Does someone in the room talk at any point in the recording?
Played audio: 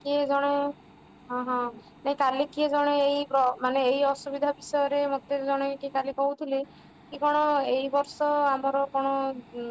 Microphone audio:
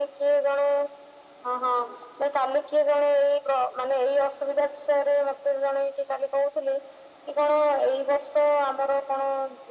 No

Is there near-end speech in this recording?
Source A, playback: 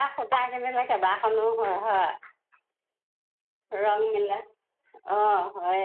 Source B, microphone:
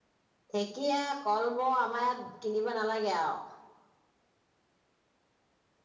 Yes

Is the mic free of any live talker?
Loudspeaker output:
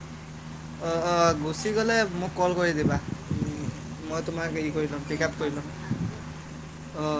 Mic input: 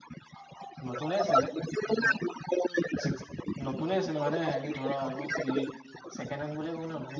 No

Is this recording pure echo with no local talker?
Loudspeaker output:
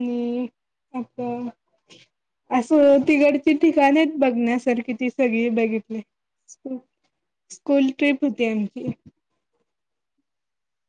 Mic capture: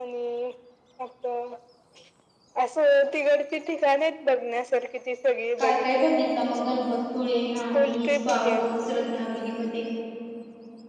No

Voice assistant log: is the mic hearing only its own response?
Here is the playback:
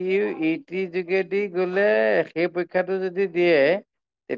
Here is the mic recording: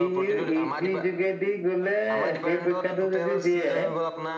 No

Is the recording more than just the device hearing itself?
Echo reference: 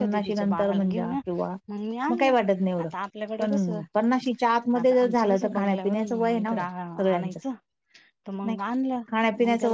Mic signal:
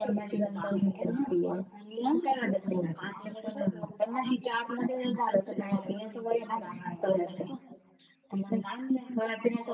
No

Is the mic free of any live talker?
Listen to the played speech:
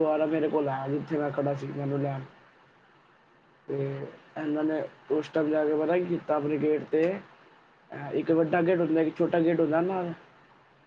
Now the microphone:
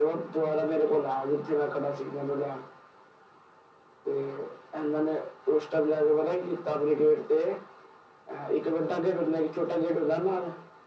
Yes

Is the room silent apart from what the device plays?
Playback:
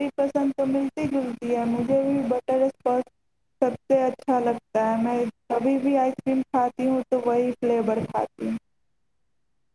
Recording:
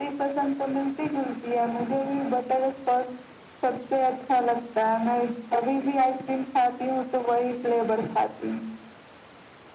Yes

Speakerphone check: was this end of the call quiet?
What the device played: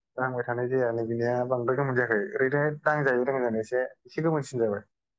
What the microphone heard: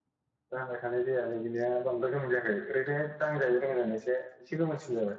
Yes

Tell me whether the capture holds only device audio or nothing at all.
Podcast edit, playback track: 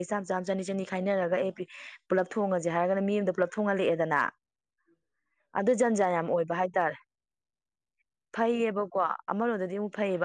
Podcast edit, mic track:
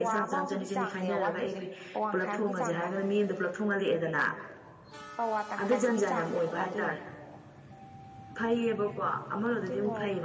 No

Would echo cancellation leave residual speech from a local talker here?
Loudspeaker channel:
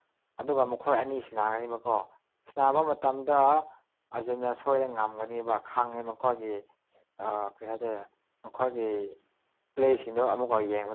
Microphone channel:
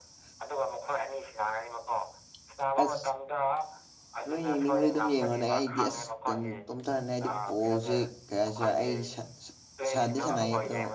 Yes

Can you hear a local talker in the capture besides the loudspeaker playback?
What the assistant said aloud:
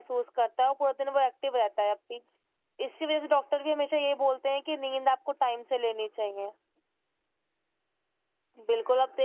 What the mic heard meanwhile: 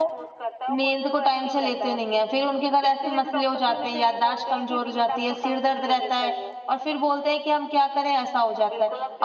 Yes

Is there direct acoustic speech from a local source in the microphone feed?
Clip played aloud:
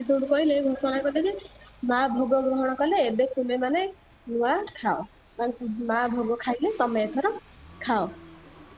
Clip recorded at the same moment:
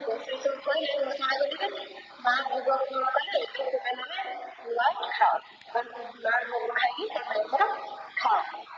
No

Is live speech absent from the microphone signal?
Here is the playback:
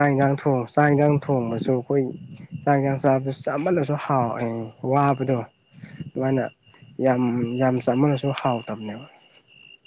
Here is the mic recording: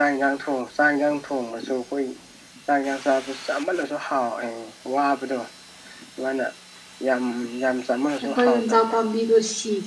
No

